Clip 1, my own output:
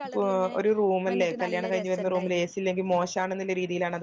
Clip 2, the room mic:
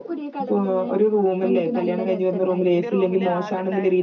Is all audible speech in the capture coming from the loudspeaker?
No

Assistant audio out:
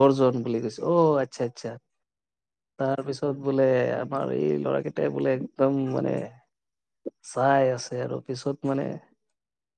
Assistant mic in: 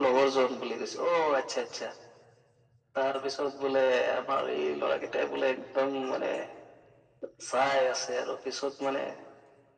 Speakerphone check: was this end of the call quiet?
Yes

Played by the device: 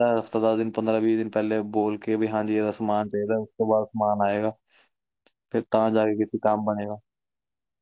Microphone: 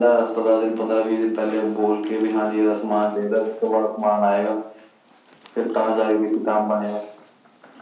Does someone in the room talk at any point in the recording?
No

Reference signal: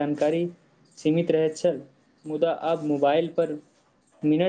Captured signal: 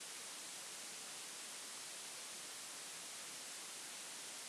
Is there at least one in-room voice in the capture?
No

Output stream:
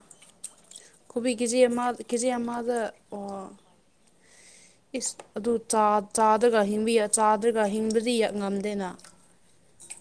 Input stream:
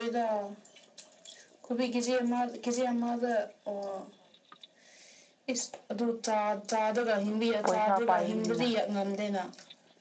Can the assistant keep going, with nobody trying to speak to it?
No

